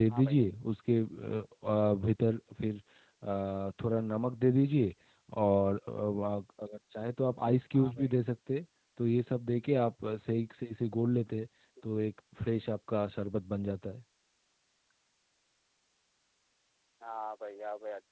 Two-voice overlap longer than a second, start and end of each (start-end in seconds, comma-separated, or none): none